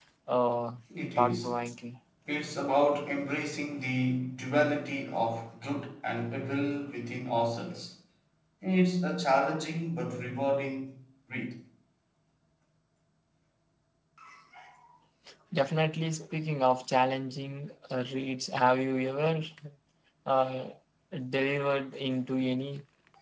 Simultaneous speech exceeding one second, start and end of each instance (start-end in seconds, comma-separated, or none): none